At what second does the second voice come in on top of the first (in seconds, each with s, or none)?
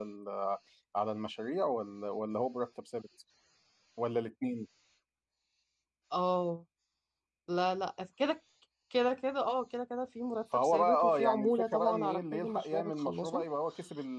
10.5 s